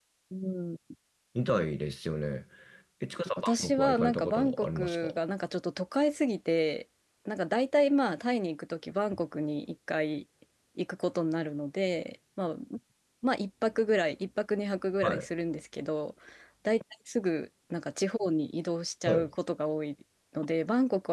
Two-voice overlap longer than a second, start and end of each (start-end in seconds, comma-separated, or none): 3.4-5.0